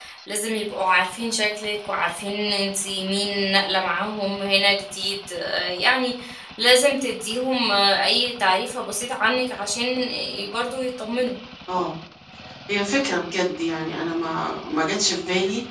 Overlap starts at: none

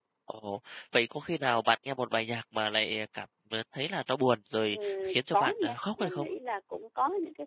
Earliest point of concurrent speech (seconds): 4.7 s

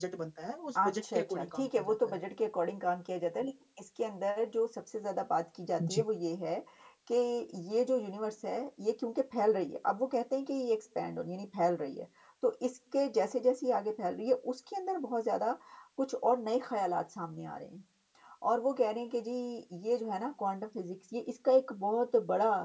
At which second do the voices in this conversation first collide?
0.8 s

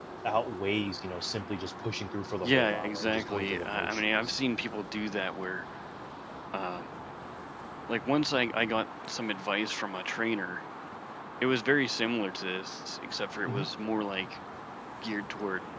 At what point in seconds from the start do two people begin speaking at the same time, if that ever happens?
2.4 s

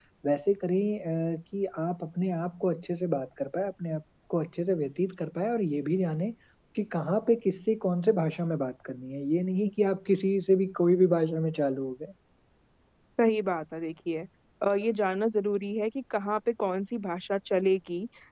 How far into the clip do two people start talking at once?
none

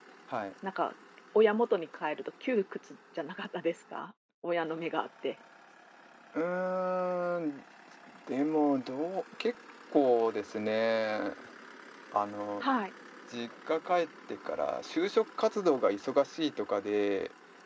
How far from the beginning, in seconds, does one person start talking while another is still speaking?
none

